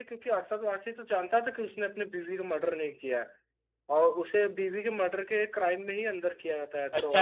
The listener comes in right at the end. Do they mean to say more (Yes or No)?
Yes